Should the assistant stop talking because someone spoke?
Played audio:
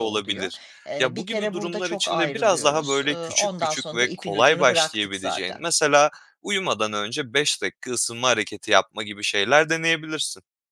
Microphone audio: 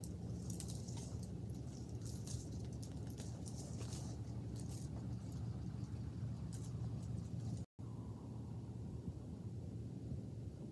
No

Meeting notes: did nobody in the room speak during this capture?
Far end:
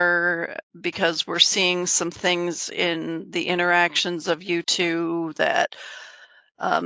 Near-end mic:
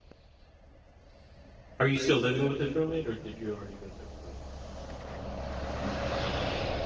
No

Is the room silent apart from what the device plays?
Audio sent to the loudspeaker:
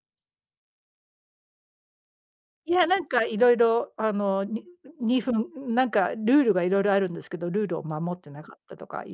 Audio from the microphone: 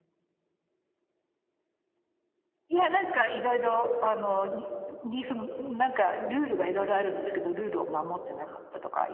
Yes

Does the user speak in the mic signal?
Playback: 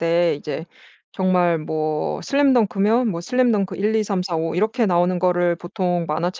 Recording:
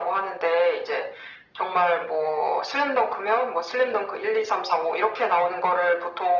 No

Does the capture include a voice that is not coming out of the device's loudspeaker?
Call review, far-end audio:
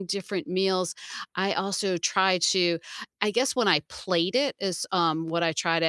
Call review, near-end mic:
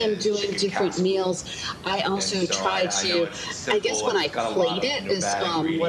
Yes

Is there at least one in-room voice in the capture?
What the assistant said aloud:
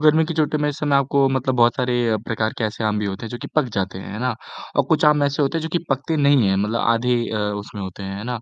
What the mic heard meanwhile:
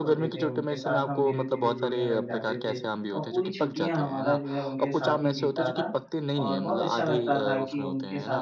Yes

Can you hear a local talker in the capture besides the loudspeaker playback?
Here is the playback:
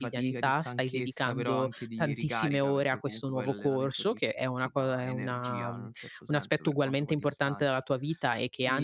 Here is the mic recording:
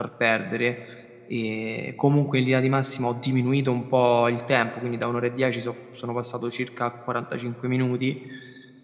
Yes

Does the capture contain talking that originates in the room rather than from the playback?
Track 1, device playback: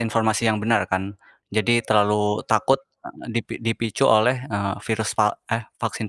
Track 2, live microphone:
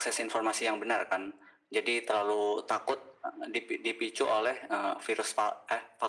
No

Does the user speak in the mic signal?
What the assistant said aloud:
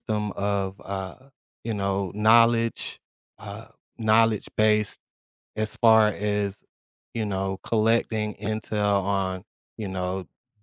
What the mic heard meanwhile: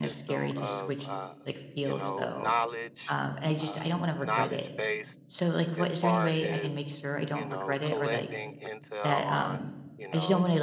Yes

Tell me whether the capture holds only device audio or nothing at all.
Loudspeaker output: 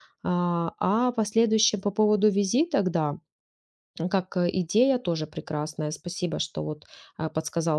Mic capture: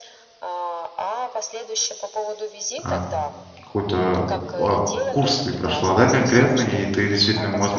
No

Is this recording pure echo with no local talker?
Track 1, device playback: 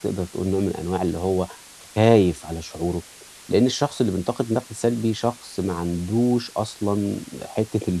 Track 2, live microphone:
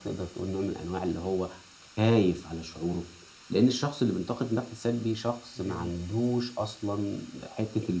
No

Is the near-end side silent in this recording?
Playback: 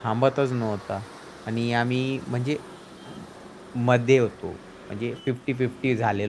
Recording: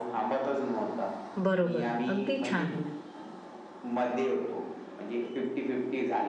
No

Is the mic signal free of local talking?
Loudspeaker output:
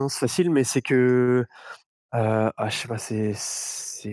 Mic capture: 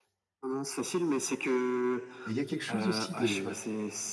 No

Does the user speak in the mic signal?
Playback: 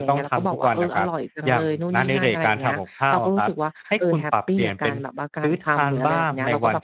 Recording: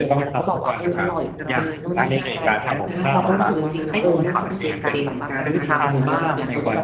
Yes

